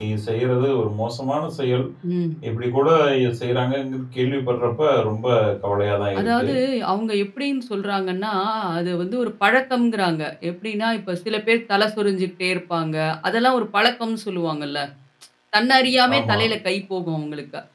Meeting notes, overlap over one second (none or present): none